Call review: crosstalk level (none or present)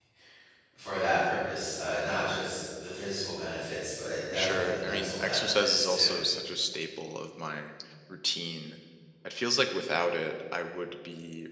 present